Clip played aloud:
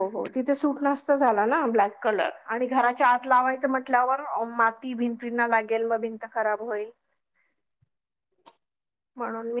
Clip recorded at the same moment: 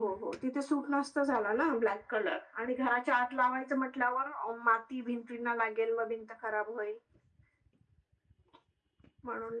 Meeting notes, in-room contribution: none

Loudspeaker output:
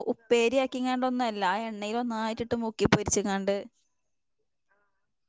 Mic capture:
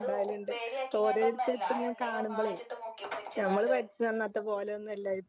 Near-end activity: present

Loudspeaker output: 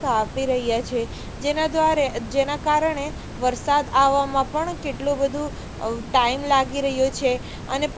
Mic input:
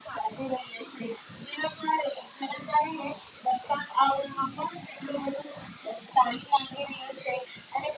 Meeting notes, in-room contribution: none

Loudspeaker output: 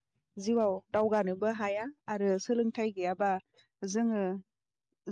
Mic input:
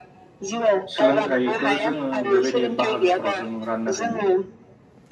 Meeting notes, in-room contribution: present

